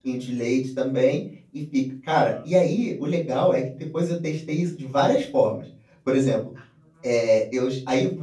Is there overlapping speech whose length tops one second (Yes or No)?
No